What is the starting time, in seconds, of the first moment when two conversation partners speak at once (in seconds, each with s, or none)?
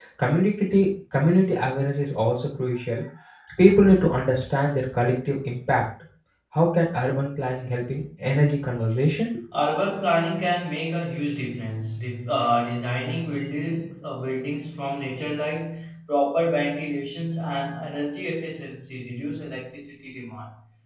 none